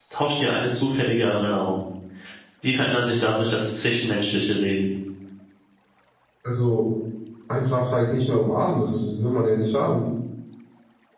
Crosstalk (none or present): none